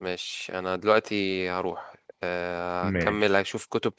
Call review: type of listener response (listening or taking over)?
listening